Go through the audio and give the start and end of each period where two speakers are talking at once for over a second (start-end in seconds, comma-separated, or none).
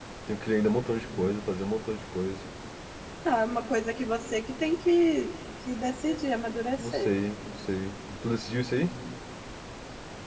none